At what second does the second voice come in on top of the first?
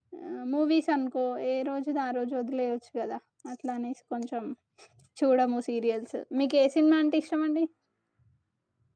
none

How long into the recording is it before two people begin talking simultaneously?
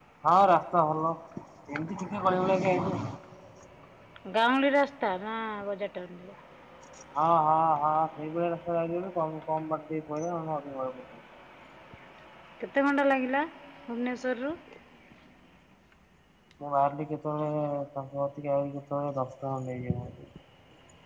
none

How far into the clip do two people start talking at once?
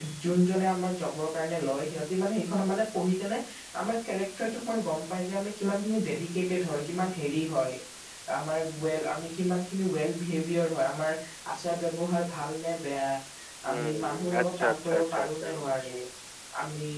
14 s

